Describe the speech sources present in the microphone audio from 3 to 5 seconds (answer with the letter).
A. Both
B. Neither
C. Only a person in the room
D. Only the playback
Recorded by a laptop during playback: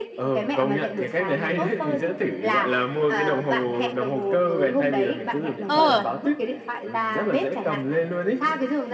D